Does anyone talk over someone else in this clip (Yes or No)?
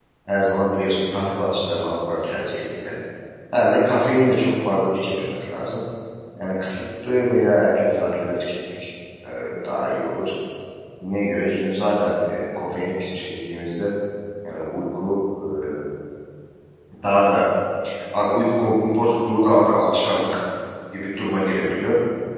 No